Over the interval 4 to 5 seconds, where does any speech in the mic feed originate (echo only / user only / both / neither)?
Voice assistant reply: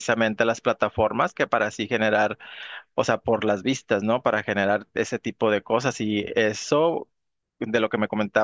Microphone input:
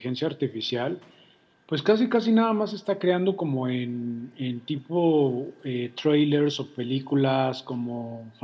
user only